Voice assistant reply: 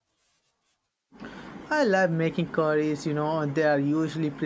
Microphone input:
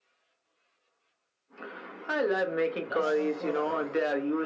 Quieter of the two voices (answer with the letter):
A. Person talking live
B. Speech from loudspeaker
A